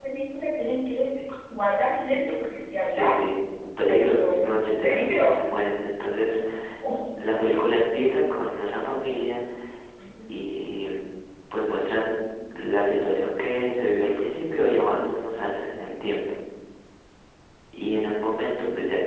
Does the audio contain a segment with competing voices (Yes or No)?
Yes